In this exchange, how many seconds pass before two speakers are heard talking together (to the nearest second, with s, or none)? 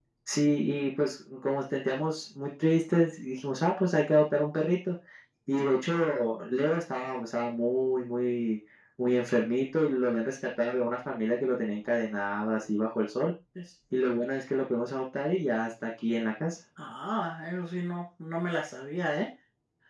none